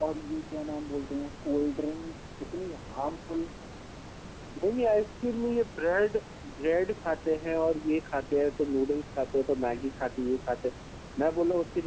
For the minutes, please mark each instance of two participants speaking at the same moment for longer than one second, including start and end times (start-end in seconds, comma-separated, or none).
none